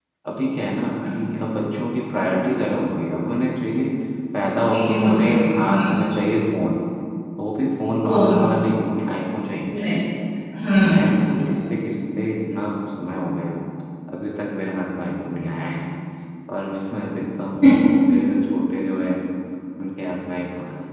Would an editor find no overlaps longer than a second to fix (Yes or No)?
No